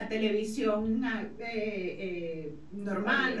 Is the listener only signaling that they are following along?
Yes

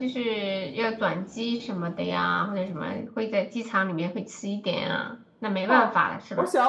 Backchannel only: No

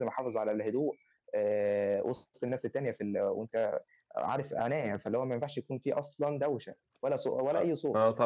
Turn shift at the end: Yes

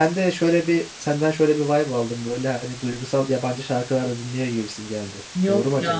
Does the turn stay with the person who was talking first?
No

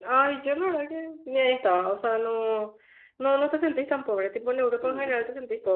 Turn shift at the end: No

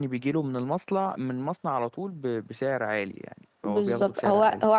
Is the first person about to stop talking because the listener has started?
Yes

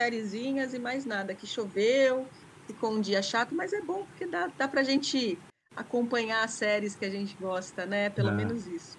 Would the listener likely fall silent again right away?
No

